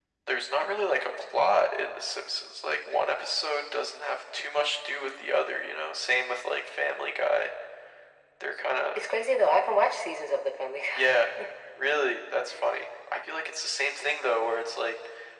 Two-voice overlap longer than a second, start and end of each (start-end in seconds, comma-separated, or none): none